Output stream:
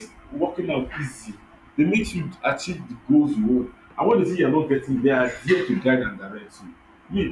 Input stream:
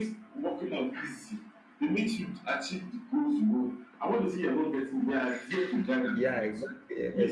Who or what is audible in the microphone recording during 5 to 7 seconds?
both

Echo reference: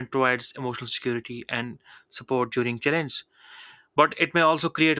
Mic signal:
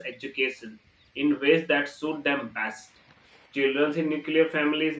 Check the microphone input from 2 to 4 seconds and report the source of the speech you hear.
user only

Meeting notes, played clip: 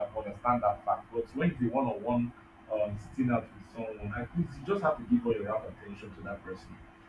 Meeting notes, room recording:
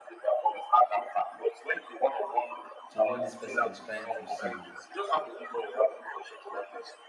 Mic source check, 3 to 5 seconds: both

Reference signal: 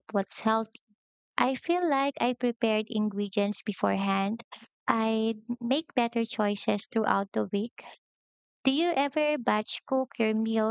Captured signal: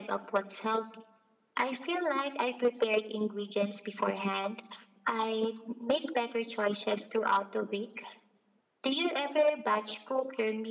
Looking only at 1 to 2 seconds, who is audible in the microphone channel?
echo only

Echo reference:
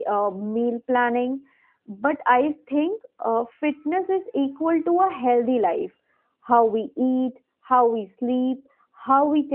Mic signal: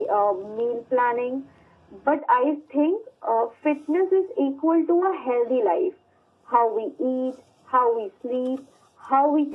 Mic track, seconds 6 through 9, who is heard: echo only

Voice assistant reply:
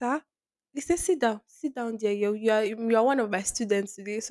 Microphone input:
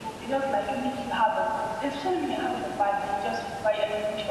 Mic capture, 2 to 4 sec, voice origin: user only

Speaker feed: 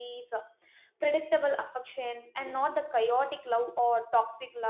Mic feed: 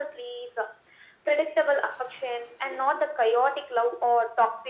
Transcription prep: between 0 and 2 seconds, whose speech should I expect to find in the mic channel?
echo only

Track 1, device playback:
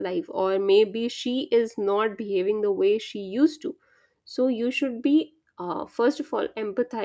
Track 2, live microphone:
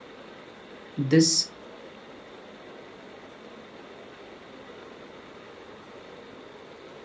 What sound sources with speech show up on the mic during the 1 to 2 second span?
user only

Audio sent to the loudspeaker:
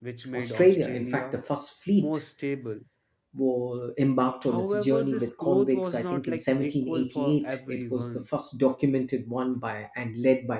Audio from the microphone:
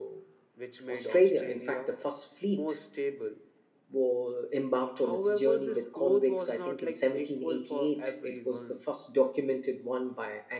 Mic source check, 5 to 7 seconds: echo only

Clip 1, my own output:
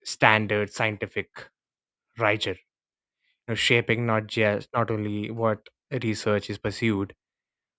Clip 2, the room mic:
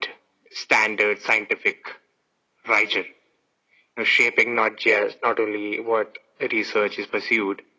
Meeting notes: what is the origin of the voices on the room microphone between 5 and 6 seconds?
echo only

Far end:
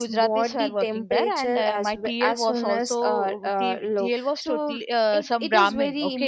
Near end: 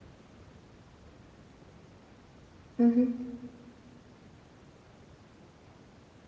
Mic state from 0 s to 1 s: neither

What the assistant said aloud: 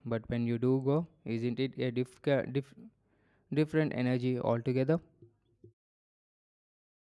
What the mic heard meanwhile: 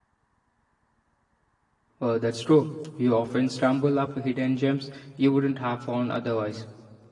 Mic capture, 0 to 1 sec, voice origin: neither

